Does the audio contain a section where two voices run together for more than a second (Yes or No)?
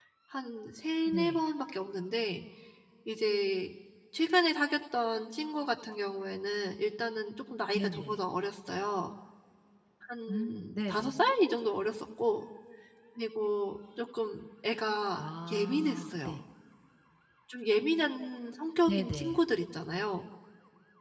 Yes